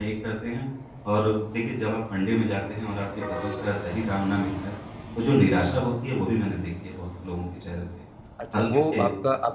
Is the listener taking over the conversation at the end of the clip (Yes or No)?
Yes